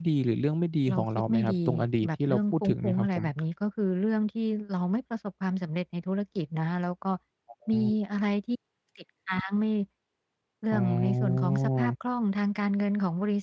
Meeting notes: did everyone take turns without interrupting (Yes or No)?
No